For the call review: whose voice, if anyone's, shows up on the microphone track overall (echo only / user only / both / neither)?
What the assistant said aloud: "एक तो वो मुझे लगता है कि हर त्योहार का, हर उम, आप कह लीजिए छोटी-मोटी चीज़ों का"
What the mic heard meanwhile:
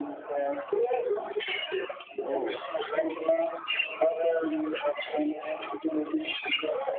both